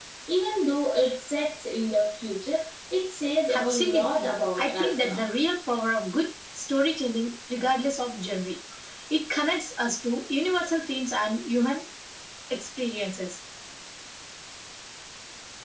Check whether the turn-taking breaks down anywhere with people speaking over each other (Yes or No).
Yes